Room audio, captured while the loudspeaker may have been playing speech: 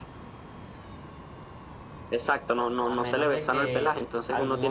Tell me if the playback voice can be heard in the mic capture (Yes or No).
Yes